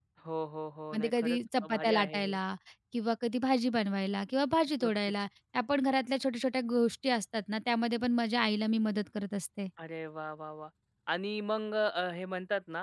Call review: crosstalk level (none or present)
present